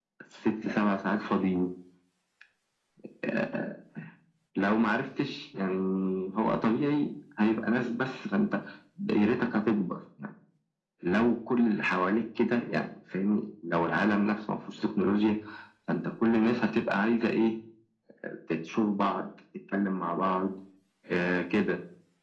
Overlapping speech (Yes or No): No